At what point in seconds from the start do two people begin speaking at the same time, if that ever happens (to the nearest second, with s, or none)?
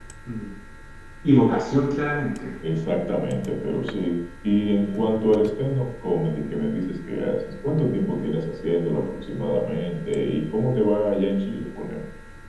none